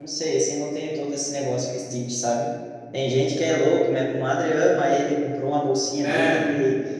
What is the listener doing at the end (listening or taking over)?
listening